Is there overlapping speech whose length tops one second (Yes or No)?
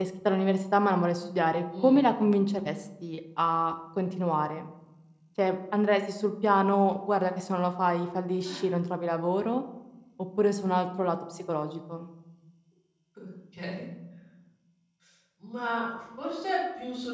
No